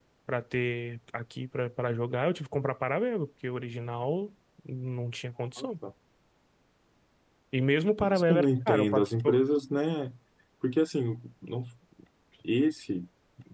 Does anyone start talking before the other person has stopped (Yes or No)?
Yes